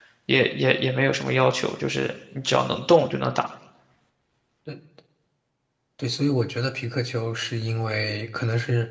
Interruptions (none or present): none